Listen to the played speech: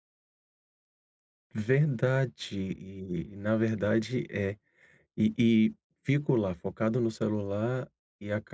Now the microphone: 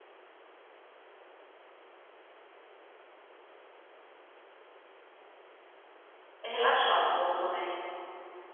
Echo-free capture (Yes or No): Yes